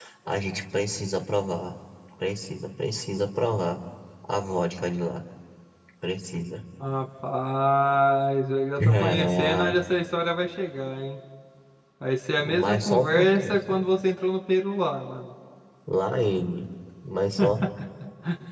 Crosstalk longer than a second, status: present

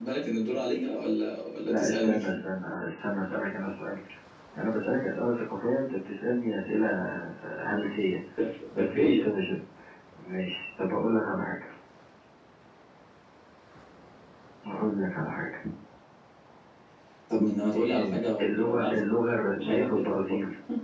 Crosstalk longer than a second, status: present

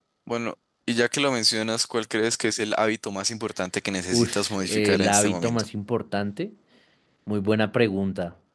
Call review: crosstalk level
present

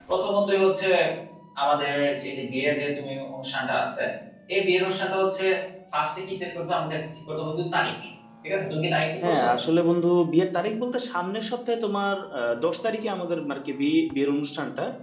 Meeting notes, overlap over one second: none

